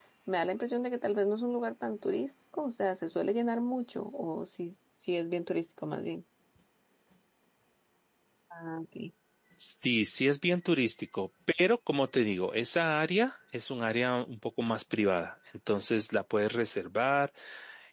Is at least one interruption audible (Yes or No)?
No